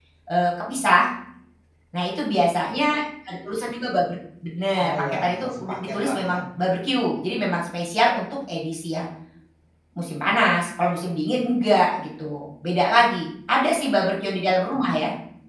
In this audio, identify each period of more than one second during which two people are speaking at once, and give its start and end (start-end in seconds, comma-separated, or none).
4.7-6.4